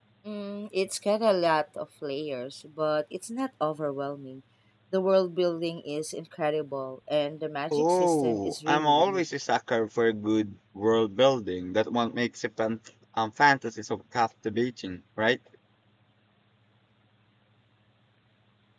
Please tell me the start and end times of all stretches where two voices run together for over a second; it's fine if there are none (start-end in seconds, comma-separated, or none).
7.7-9.2